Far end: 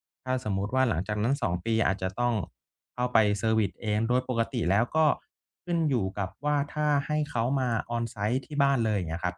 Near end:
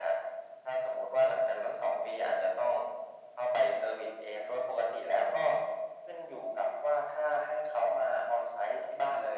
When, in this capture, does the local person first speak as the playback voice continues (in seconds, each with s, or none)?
none